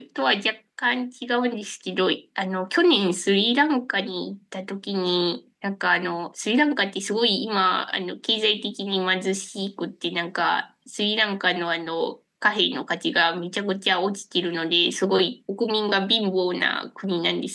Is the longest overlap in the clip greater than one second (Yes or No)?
No